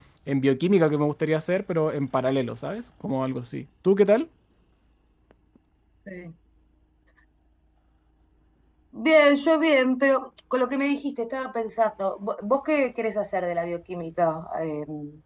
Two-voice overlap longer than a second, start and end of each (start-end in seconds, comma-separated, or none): none